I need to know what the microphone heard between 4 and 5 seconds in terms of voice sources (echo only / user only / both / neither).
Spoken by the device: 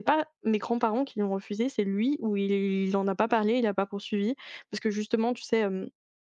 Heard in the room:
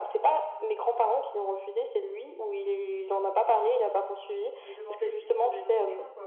both